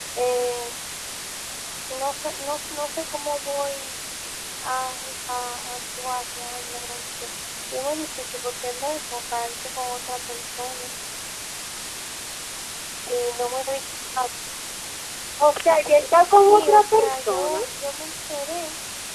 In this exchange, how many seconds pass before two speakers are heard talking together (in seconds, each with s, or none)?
16.5 s